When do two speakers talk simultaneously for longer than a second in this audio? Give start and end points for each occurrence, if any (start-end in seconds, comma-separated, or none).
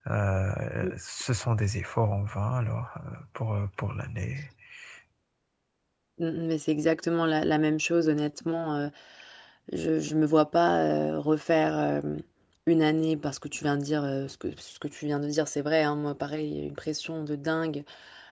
none